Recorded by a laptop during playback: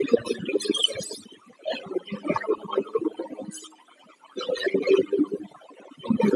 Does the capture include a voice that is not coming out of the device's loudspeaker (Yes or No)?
No